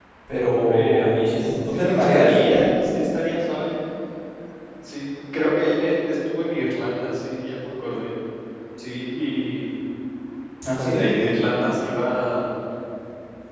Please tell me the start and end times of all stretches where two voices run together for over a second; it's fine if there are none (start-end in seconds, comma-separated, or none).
0.7-2.4